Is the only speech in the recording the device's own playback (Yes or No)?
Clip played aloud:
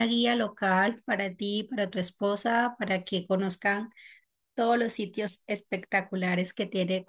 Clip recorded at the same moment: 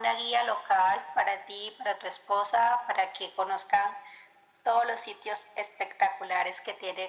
Yes